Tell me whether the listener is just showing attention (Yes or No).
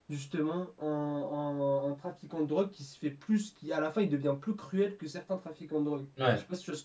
No